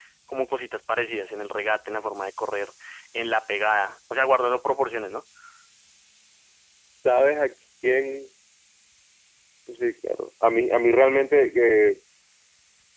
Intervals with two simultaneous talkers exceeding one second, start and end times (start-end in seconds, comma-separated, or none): none